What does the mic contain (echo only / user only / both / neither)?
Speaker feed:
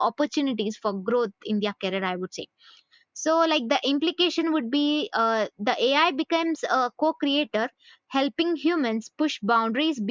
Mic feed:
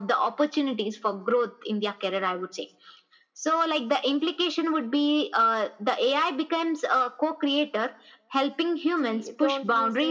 both